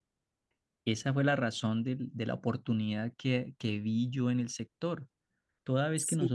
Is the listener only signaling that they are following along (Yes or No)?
Yes